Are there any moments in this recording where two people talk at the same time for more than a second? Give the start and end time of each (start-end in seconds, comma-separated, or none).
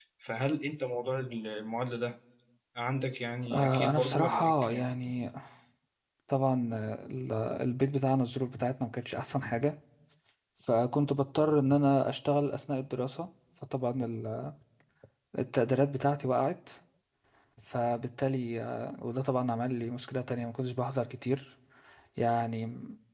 3.5-4.8